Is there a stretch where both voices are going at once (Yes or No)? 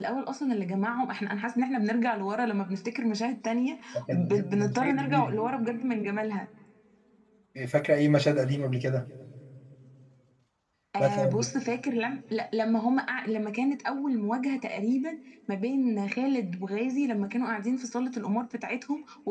Yes